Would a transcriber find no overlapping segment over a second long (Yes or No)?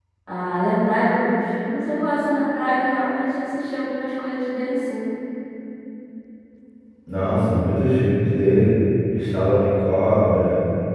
Yes